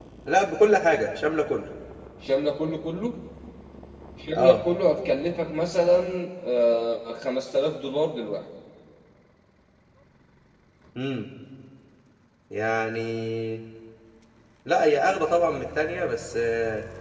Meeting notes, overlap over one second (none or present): none